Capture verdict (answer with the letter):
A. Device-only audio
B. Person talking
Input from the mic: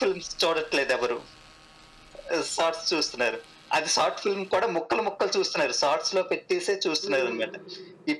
B